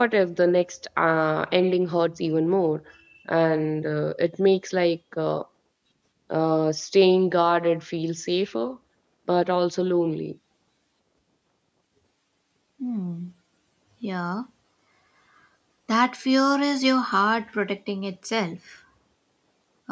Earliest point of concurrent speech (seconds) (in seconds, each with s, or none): none